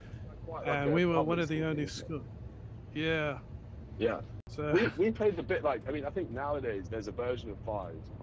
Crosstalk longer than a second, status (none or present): present